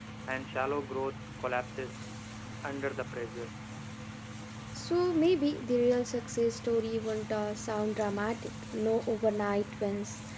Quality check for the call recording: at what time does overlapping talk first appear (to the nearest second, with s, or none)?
none